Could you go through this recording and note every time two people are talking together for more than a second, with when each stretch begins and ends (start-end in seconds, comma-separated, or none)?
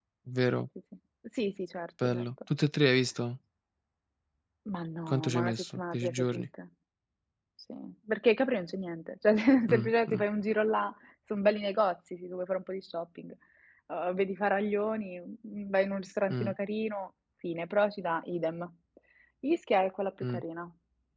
5.1-6.4